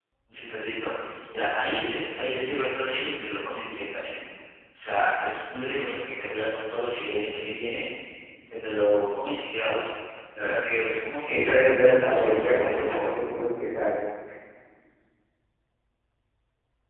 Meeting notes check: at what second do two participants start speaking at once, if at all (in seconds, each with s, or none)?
11.3 s